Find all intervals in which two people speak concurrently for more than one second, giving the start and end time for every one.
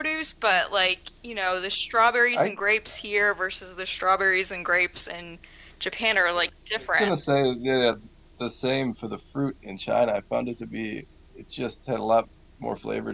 none

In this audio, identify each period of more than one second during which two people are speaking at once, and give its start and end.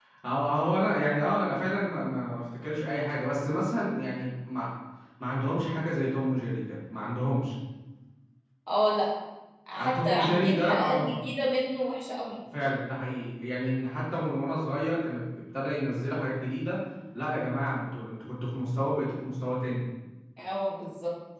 9.8-11.2

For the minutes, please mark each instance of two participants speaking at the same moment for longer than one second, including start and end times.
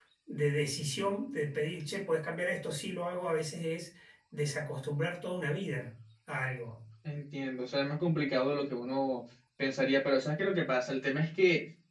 none

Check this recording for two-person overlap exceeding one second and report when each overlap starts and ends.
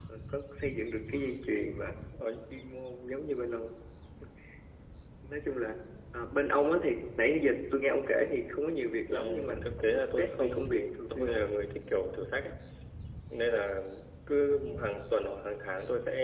9.1-11.4

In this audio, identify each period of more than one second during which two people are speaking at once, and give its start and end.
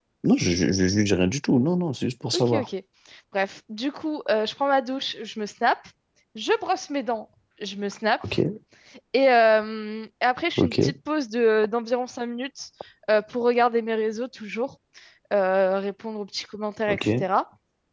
none

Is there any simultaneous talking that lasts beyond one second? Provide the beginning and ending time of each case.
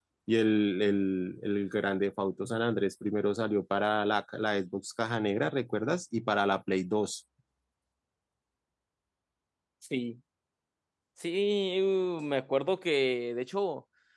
none

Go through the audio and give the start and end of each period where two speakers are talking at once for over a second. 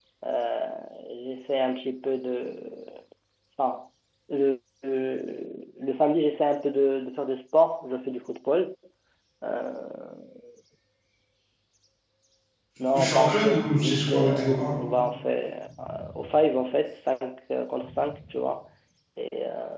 12.9-14.7

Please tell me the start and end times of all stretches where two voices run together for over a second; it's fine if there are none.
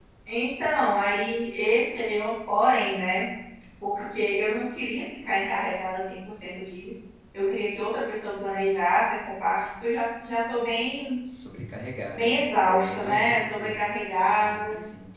12.1-13.8

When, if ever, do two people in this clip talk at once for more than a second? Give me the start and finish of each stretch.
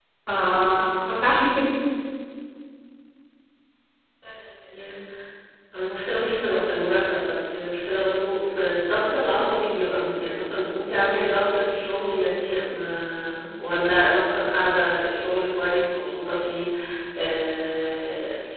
none

